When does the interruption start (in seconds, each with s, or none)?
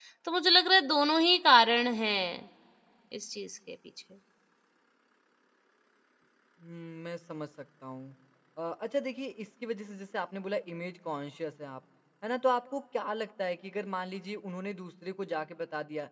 none